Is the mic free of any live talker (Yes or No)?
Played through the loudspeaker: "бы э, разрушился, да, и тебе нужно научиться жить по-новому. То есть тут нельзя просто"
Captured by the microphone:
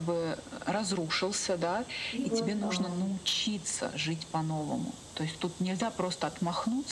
No